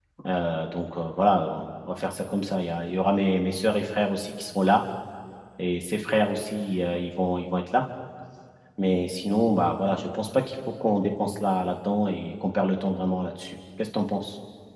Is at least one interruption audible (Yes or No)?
No